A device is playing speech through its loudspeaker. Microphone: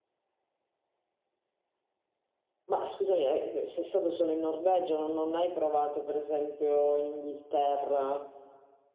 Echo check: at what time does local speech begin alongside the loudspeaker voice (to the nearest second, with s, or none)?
3 s